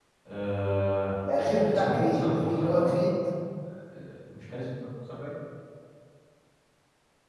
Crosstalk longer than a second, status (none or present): present